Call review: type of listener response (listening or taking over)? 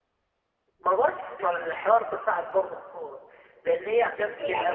taking over